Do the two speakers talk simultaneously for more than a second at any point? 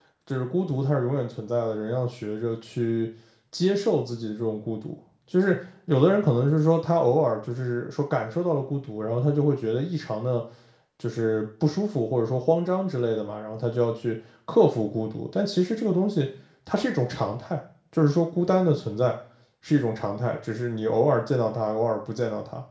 No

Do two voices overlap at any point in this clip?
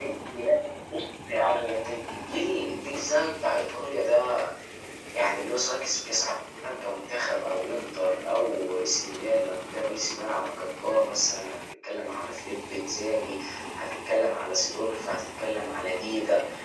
No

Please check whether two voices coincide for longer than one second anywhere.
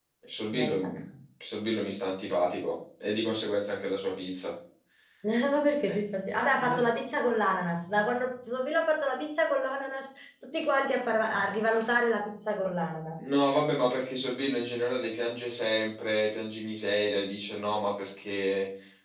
No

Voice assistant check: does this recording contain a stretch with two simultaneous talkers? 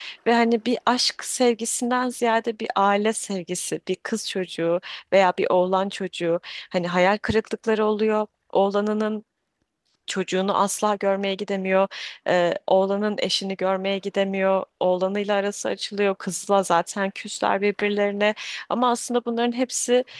No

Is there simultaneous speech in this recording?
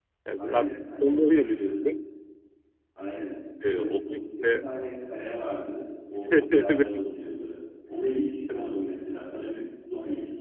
Yes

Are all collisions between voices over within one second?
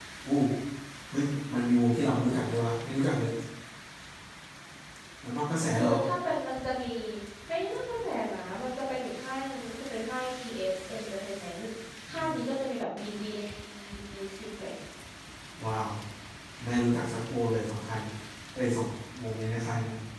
Yes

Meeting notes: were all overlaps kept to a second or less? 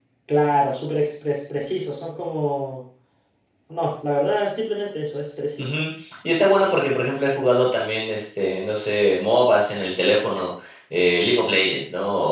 Yes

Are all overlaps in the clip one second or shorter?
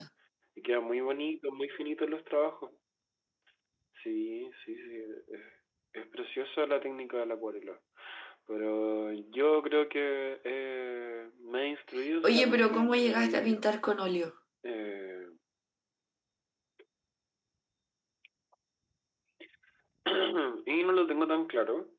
No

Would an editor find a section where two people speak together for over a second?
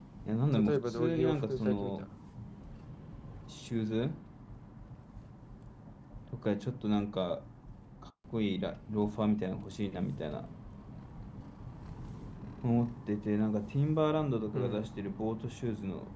Yes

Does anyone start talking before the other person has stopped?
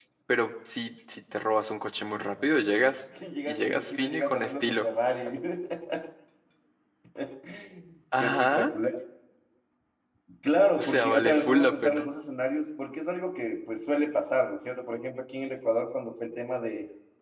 Yes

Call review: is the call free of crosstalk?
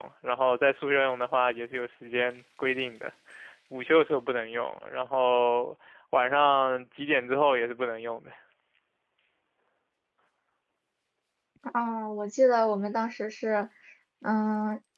Yes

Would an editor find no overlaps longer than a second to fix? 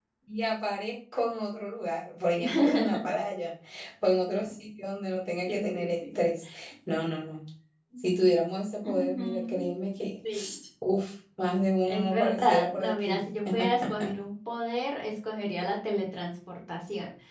No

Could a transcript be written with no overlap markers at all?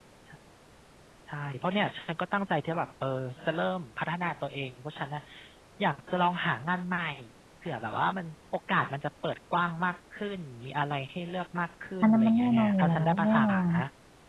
No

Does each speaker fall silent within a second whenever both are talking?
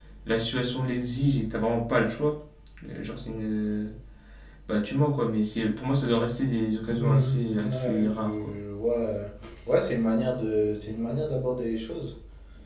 No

